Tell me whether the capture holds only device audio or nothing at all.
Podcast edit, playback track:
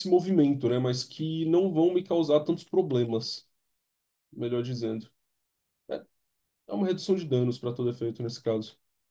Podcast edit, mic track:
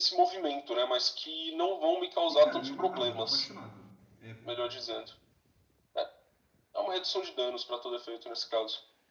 No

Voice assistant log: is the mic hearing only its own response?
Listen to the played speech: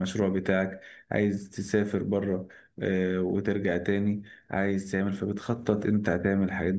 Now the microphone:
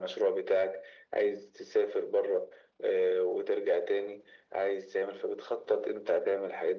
Yes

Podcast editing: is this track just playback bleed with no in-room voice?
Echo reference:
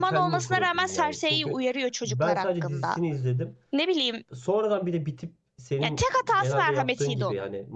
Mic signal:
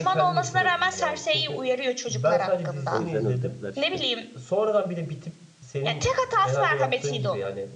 No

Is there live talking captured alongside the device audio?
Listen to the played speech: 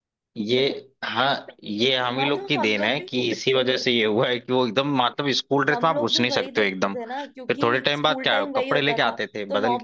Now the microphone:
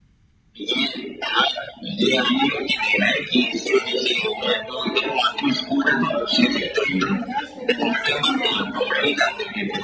Yes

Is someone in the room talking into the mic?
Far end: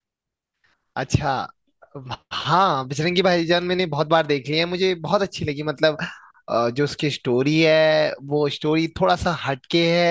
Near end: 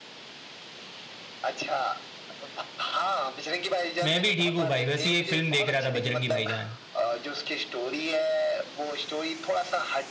Yes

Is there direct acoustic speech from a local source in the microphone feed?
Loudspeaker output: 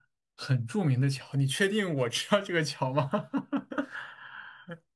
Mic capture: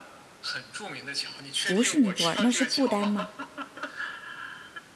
Yes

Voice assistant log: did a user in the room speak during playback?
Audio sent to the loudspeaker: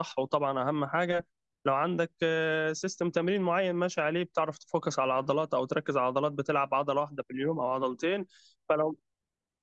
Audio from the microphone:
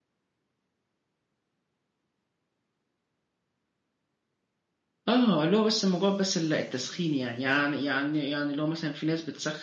Yes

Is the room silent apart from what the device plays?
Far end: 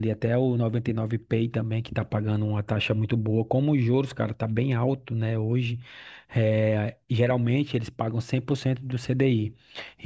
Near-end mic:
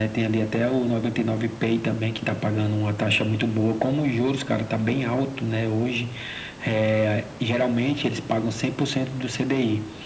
Yes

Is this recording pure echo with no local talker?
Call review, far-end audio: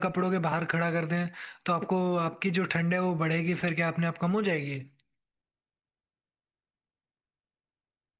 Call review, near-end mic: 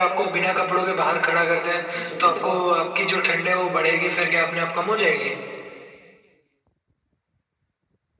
No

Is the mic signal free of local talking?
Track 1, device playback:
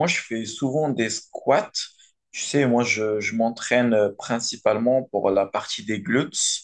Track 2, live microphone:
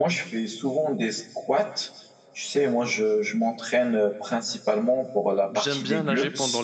No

